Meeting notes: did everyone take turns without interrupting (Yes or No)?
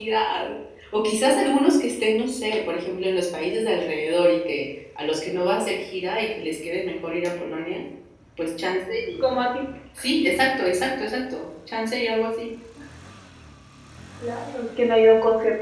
Yes